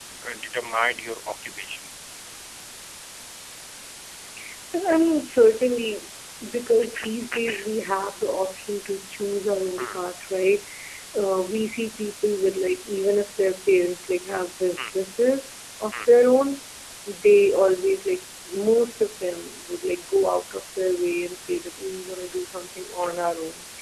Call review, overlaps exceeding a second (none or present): none